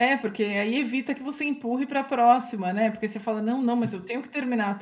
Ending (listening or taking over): listening